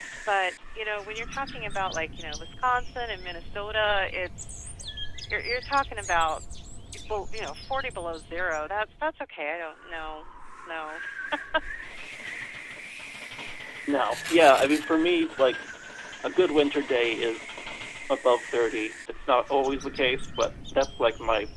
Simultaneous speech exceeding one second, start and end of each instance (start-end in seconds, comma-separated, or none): none